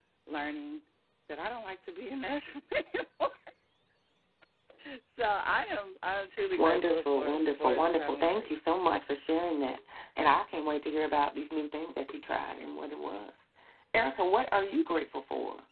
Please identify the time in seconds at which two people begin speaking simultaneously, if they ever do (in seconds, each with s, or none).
6.5 s